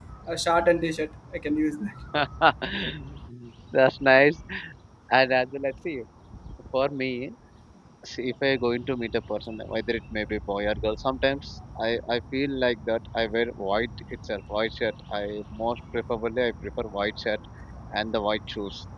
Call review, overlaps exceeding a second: none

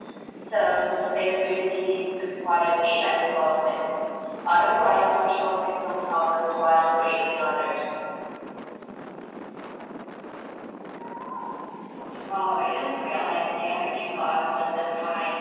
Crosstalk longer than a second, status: none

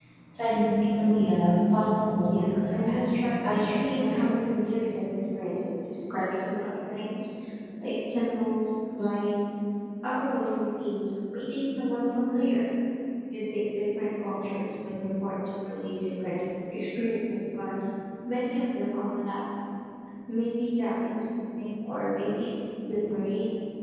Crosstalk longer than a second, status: present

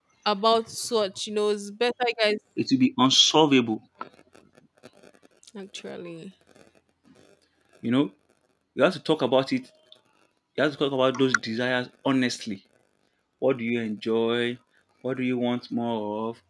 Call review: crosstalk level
none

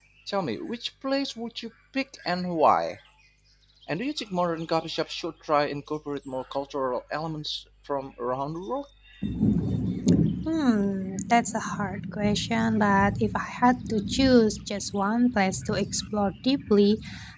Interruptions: none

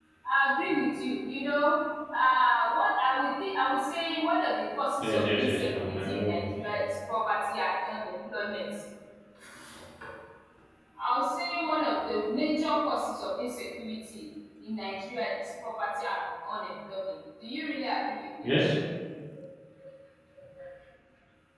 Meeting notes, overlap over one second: present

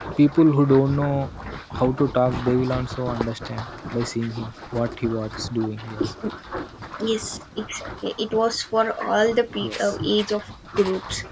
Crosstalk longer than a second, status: none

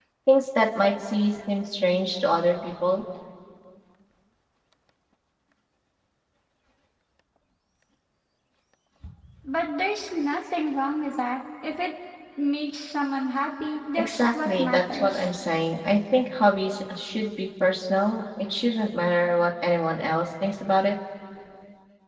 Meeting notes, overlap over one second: present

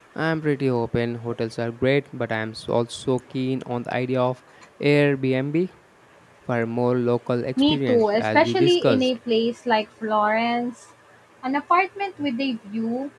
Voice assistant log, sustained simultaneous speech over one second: present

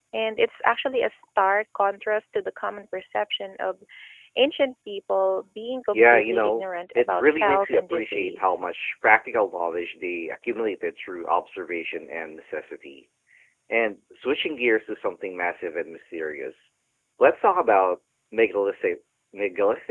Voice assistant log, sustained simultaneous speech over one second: present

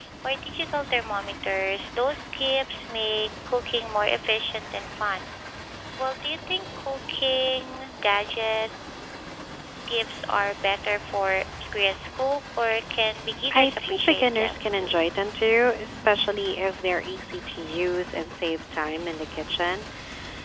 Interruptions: present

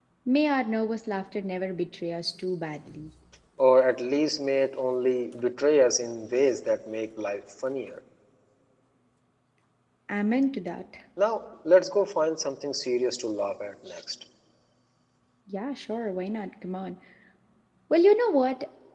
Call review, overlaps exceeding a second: none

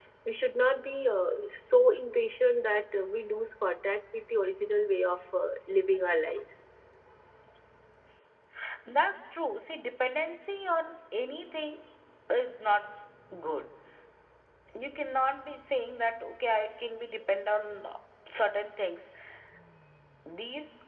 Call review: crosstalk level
none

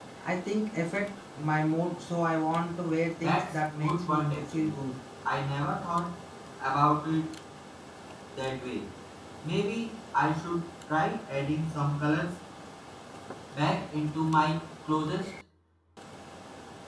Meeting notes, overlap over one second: present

